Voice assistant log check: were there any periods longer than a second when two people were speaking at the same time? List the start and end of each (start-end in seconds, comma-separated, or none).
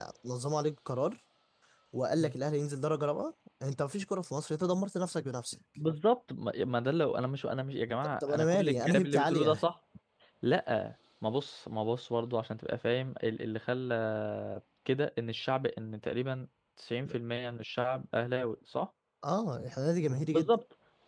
8.0-9.6